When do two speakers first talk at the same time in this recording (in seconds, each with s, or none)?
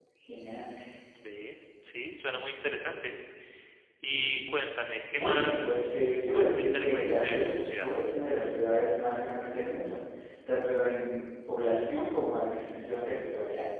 5.1 s